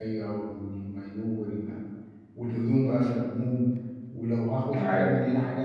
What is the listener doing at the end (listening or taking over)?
listening